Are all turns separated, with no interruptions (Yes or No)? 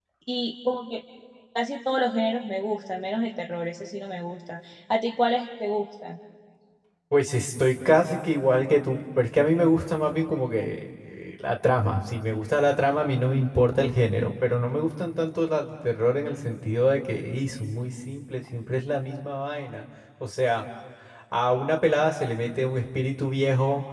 Yes